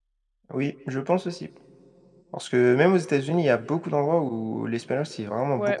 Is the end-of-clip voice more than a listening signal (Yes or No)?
Yes